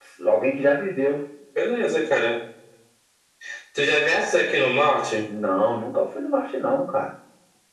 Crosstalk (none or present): none